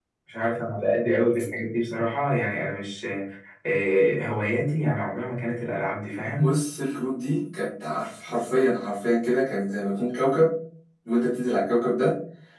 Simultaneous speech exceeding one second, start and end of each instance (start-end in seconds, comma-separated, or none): none